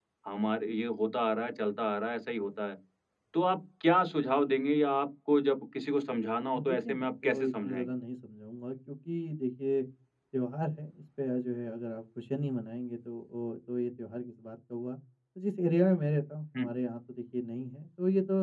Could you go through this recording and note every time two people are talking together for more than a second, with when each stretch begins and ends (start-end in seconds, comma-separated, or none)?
6.6-7.8